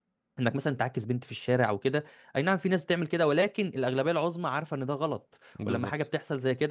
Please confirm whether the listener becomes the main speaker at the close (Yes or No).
No